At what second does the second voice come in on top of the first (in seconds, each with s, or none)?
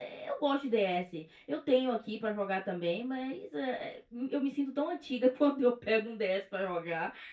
none